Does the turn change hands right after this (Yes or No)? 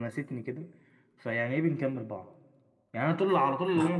No